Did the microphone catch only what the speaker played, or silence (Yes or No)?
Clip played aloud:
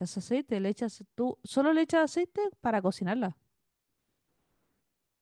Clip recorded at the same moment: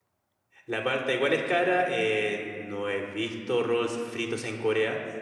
No